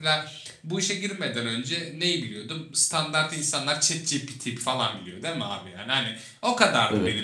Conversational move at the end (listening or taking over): listening